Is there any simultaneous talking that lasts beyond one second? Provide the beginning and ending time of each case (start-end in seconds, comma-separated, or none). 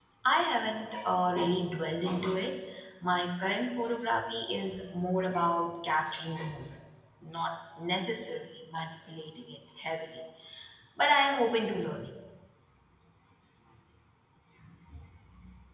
none